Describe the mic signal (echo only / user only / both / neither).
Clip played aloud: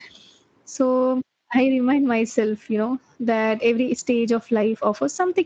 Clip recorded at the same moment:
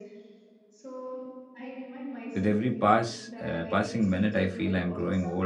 both